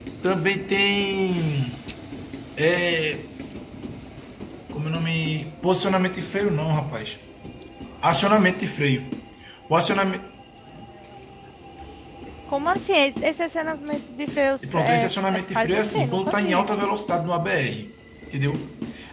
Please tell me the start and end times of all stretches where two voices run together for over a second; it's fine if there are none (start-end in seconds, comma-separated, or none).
14.6-16.8